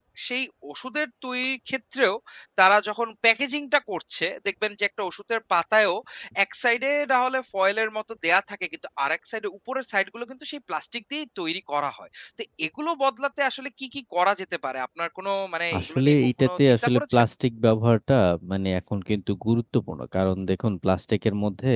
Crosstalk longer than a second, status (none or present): present